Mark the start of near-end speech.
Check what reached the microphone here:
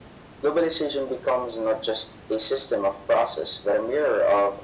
none

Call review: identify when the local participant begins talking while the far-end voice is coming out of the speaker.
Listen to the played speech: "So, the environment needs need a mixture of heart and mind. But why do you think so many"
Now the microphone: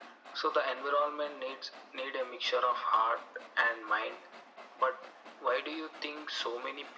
none

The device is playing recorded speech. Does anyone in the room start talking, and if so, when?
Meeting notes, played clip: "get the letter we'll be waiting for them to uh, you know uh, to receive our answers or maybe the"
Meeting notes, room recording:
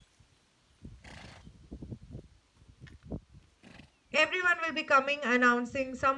4.1 s

